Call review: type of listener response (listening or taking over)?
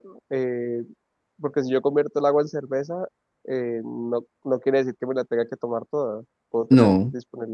listening